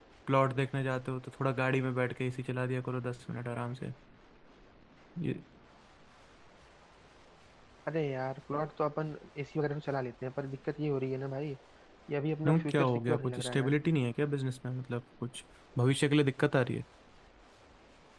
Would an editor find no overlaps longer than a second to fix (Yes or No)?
No